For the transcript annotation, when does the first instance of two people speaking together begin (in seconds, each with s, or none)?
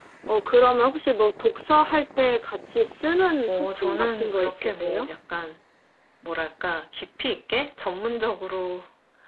3.5 s